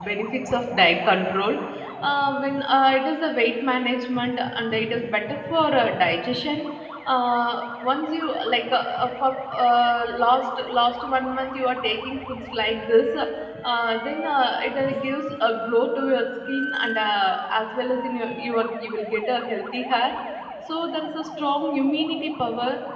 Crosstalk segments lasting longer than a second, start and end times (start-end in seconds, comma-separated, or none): none